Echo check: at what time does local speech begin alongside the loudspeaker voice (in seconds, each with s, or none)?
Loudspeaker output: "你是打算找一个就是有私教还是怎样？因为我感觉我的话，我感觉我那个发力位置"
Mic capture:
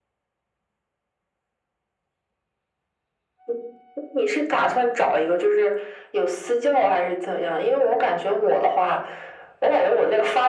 none